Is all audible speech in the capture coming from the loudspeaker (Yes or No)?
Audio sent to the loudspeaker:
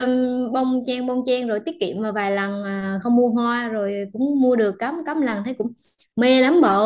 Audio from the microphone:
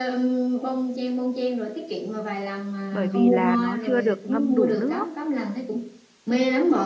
No